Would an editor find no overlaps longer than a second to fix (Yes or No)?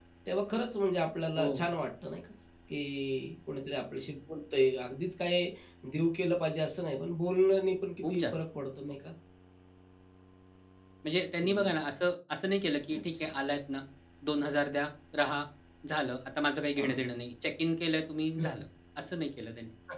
Yes